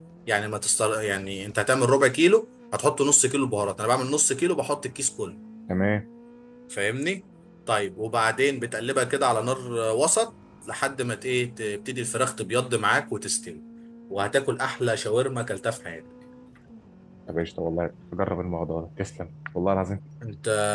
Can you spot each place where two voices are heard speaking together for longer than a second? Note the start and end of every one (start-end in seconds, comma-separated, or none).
none